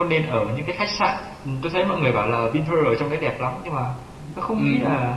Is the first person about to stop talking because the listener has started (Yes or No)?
No